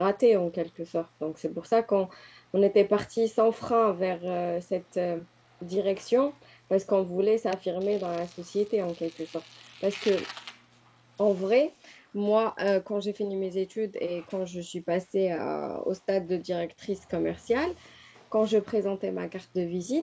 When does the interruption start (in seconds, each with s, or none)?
none